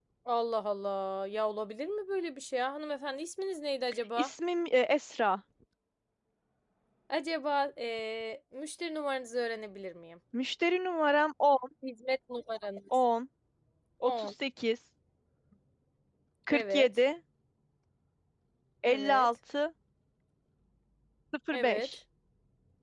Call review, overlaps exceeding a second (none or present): none